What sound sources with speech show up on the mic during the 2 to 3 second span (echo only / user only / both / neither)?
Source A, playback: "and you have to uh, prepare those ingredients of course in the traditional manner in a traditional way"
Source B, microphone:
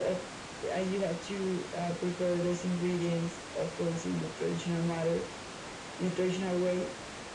echo only